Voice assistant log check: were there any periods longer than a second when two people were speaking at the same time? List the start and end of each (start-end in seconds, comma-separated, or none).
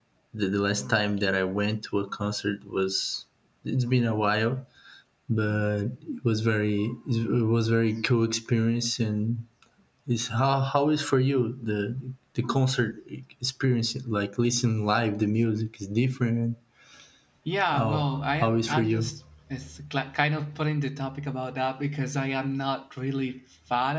17.7-19.1